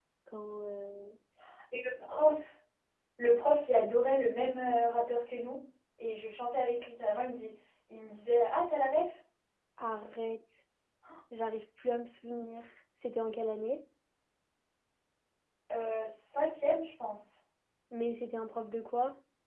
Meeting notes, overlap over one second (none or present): none